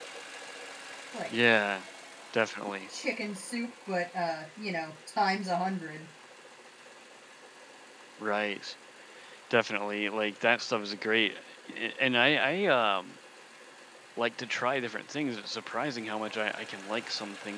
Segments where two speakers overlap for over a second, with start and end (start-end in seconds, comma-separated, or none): none